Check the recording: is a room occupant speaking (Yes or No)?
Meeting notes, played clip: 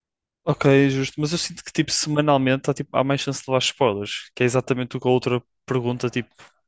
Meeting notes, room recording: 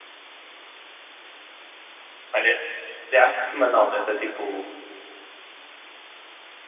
Yes